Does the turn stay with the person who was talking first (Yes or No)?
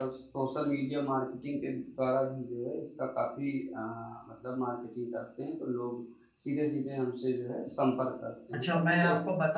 No